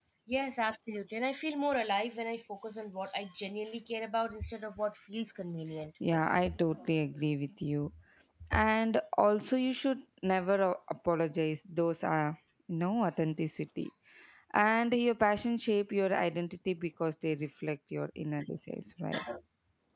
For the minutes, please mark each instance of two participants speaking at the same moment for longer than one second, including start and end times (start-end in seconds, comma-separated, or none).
none